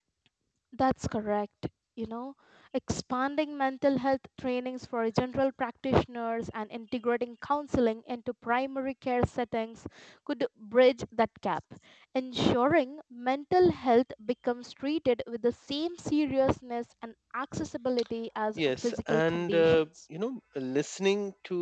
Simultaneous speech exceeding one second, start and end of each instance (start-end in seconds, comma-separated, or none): 18.6-19.8